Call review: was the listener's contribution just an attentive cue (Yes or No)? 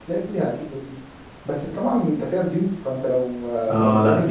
No